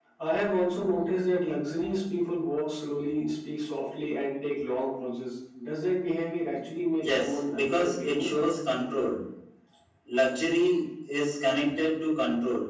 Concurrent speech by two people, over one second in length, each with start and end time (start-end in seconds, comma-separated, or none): 7.0-8.4